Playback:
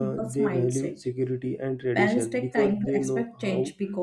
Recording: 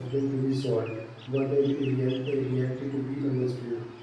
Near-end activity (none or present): present